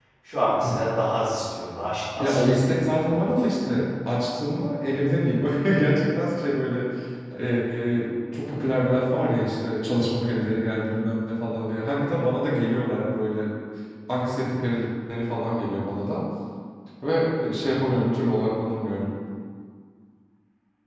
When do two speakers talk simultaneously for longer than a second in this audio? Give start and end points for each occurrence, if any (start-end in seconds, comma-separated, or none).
2.2-3.5